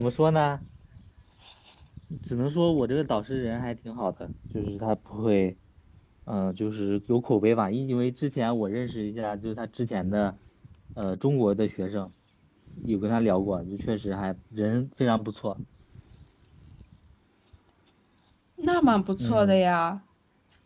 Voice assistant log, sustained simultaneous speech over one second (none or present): none